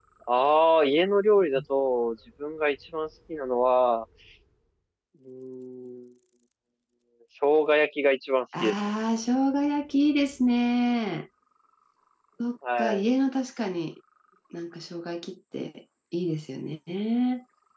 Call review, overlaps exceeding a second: none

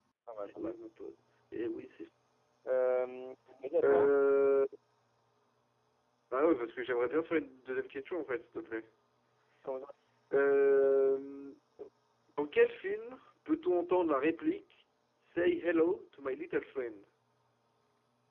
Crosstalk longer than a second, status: none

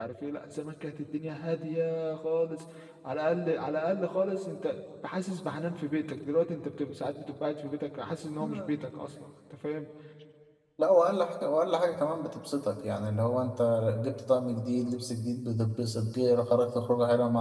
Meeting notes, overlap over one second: none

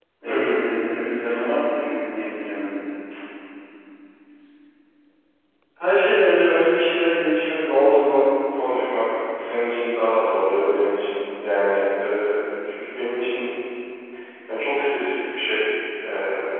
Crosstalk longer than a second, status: none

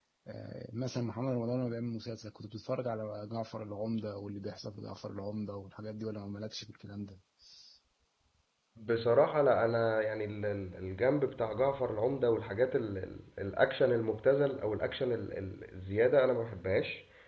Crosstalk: none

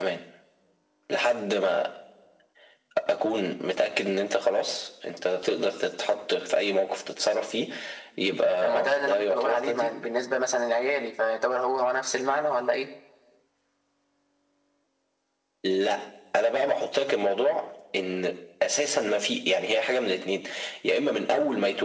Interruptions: present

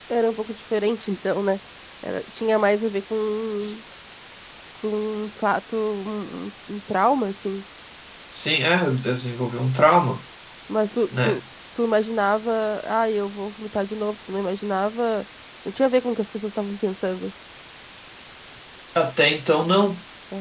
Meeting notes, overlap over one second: none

